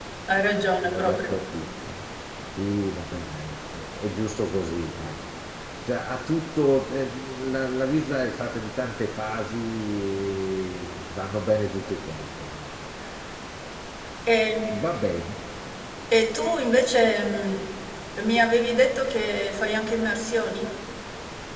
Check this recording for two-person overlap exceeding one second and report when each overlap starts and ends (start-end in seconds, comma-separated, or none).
none